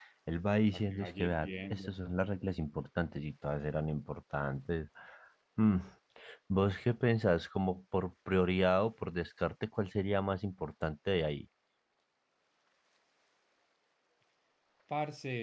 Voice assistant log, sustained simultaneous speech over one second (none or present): present